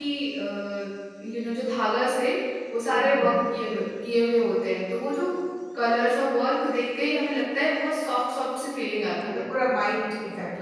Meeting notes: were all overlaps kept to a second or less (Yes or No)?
Yes